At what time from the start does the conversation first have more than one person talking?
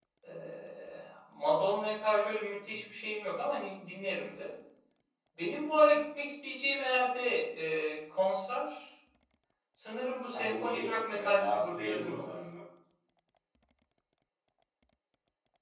10.3 s

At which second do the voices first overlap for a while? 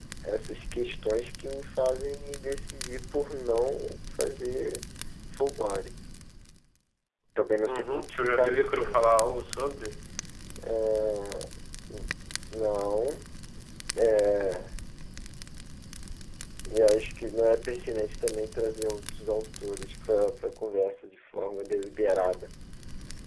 7.7 s

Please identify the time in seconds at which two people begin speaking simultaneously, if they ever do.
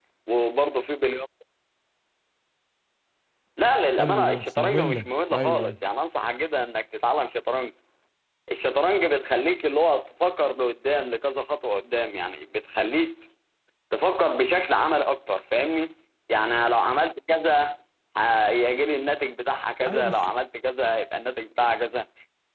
4.0 s

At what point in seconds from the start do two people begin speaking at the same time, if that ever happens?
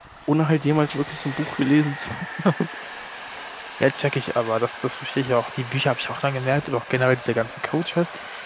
none

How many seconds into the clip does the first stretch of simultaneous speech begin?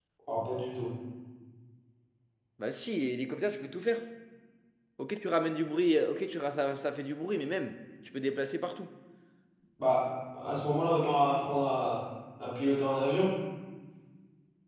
none

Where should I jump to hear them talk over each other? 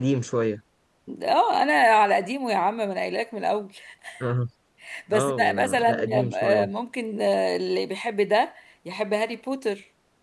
5.1 s

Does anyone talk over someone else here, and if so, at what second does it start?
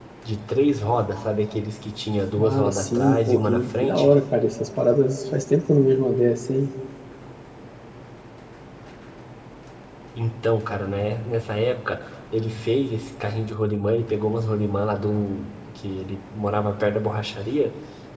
2.4 s

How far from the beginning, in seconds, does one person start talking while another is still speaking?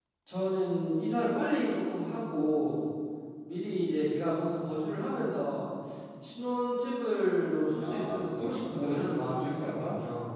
7.8 s

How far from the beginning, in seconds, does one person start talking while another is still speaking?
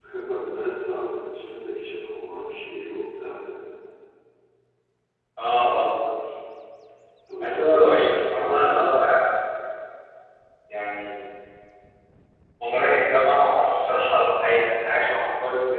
7.4 s

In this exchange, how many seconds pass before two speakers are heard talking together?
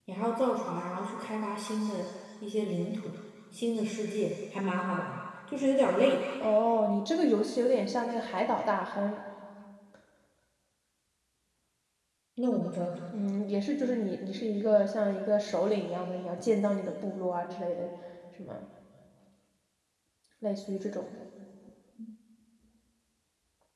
none

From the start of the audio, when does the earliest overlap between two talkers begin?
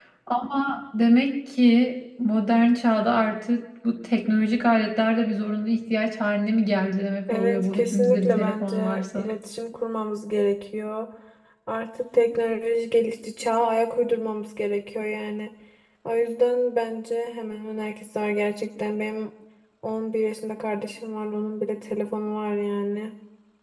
7.3 s

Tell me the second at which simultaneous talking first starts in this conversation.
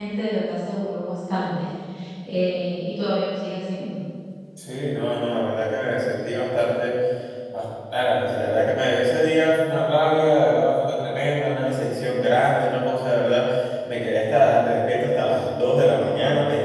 none

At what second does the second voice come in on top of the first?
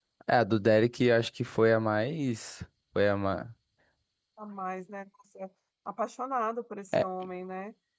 none

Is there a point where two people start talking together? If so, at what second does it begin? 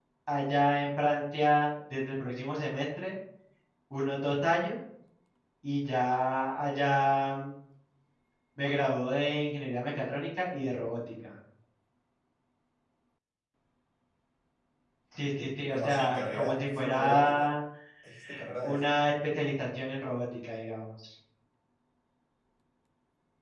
15.7 s

